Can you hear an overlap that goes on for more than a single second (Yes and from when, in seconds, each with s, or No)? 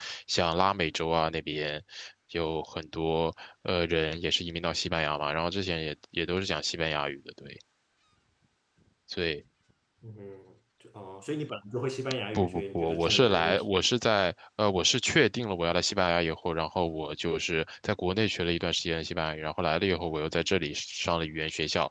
Yes, from 12.4 s